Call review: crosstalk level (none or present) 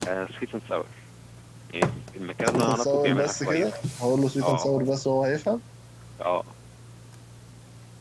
present